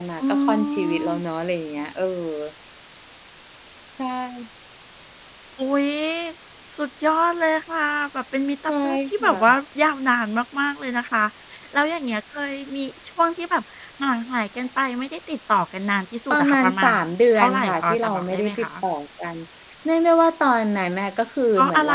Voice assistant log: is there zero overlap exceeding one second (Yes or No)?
No